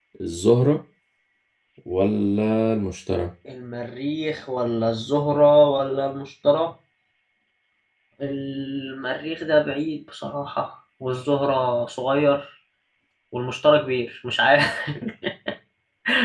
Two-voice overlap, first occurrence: none

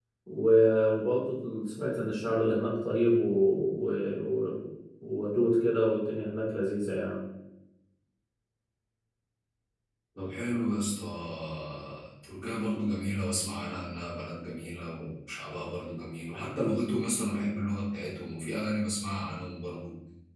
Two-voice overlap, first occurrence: none

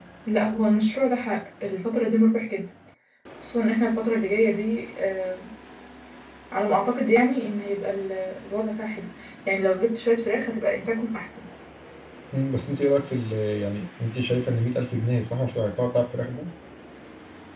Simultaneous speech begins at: none

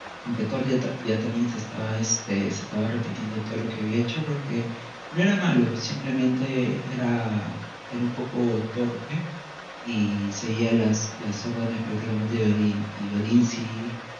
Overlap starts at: none

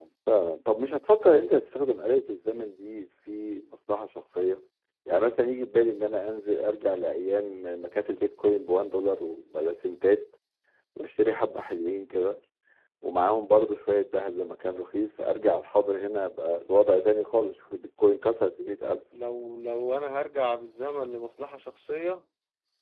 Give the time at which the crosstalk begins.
none

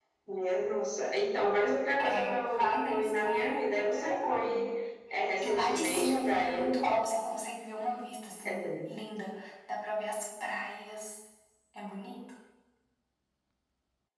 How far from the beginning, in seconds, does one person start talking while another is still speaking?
2 s

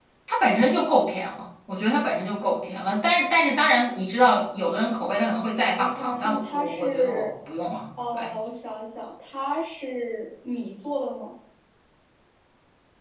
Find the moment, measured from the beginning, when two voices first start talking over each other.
6 s

